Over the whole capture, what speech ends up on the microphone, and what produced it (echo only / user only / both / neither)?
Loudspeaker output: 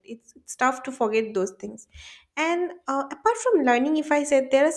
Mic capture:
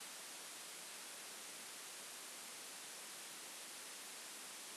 neither